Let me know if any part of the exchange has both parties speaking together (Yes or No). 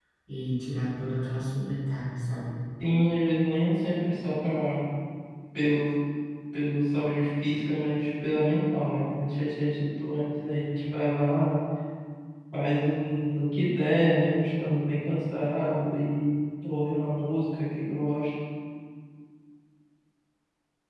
No